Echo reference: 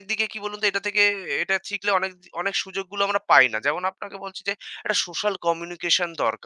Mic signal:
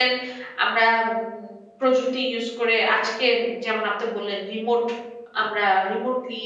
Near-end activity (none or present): present